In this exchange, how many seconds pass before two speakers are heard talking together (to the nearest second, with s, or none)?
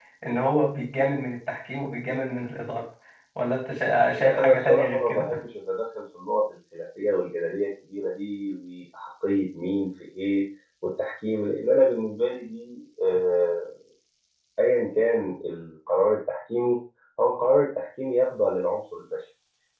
4 s